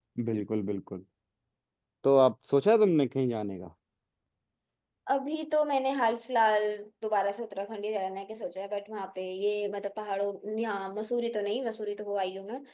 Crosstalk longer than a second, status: none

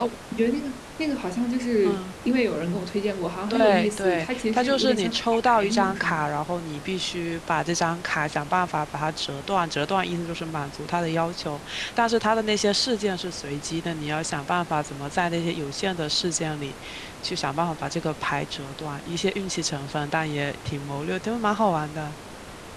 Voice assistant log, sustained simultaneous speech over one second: present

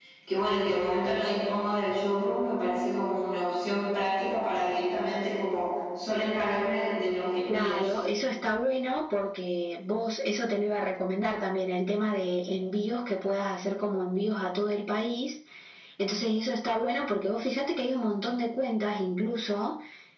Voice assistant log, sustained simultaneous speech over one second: none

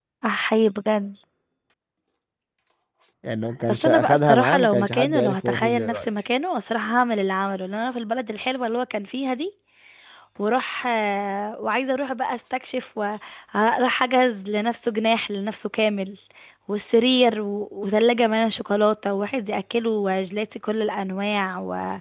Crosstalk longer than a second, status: present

